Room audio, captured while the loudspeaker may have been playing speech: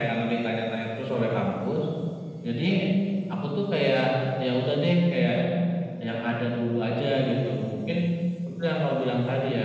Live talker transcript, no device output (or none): none